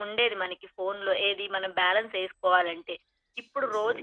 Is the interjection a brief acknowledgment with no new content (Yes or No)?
Yes